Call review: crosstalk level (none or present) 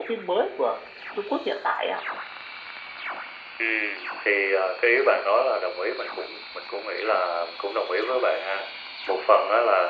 none